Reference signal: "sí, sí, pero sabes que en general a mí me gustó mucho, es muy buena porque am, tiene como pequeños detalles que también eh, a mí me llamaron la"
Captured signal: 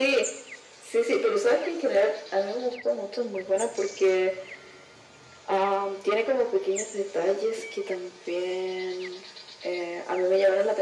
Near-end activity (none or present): none